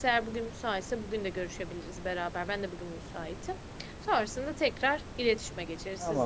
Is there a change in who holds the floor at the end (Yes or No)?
Yes